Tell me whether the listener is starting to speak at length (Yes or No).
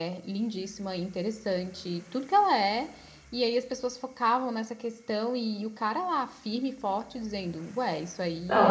Yes